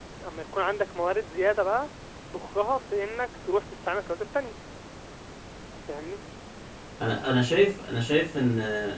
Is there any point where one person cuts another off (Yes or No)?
No